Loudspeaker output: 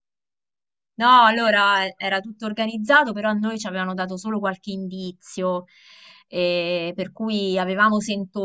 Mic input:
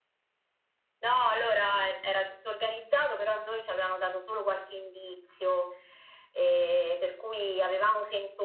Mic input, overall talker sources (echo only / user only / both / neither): echo only